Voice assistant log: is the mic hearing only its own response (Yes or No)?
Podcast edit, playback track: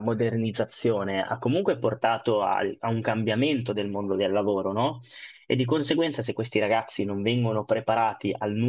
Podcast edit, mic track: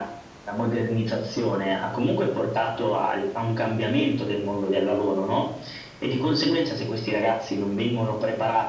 Yes